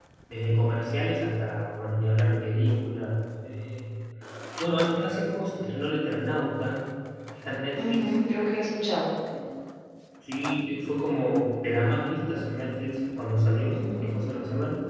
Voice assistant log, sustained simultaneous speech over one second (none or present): none